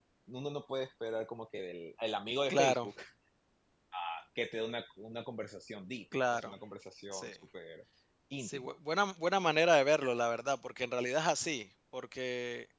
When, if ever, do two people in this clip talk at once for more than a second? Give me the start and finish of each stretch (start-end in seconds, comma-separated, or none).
none